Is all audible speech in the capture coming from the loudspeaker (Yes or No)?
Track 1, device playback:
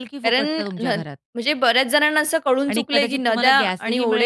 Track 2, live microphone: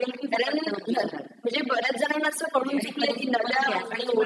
No